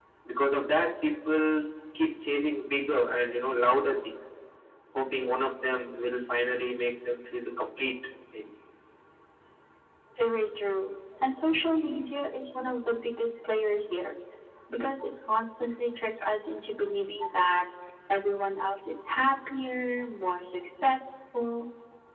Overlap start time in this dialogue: none

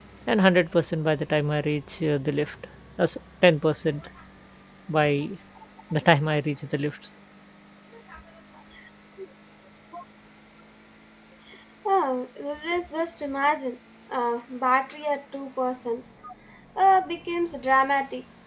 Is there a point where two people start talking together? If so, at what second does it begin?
none

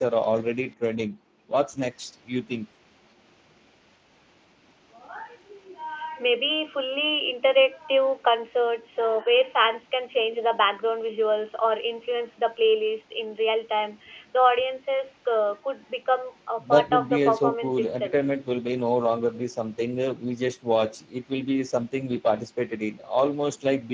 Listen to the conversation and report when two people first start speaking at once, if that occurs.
17 s

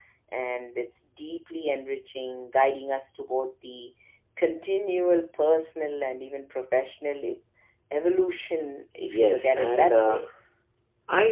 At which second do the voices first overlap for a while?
9 s

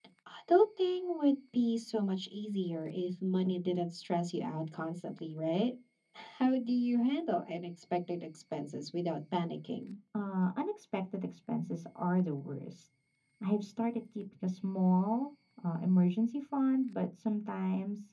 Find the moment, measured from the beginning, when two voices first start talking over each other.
none

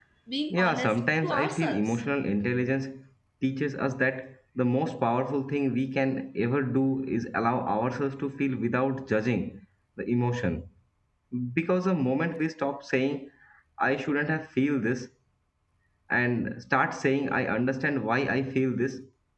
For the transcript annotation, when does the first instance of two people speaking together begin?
1 s

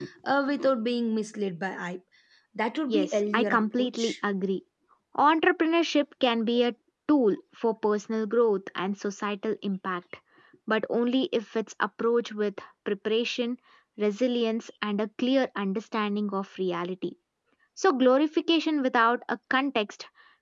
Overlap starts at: 3 s

